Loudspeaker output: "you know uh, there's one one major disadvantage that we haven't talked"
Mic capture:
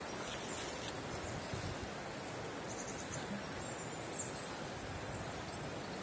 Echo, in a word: none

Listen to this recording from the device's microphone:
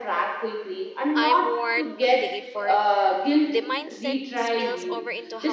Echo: present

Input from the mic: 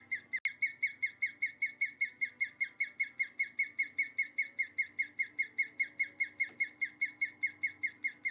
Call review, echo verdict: none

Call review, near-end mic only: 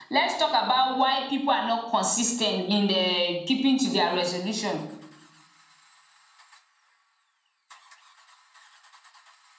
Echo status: none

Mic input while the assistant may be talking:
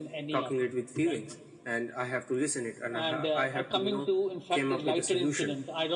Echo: present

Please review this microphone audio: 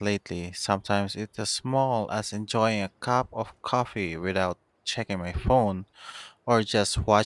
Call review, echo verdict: none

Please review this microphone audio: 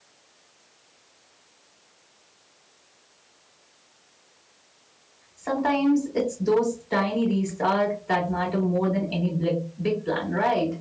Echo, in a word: none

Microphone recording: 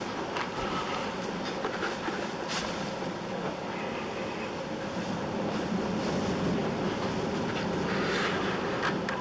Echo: none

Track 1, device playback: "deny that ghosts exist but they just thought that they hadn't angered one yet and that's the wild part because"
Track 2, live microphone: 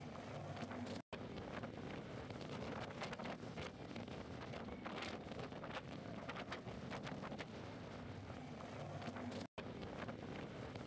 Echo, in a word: none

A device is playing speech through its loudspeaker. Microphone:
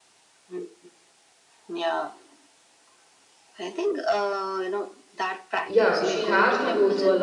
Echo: present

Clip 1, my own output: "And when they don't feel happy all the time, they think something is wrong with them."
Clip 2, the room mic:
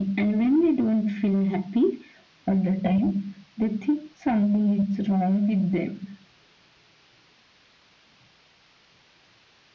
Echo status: present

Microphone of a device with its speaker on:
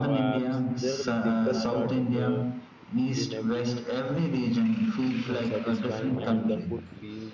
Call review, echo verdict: present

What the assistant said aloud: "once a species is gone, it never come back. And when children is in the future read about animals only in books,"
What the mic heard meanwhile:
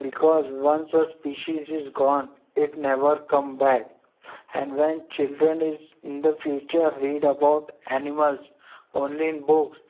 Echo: present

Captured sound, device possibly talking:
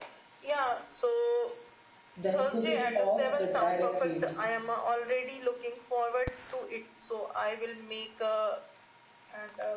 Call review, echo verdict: present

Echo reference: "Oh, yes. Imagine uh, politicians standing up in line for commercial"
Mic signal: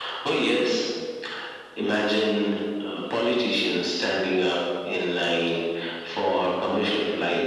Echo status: present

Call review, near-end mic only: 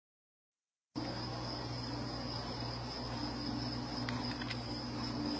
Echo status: none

